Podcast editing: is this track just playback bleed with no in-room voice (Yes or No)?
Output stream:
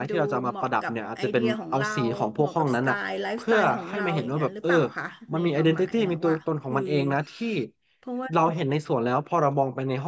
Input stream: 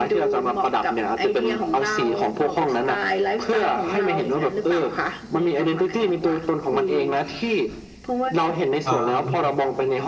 No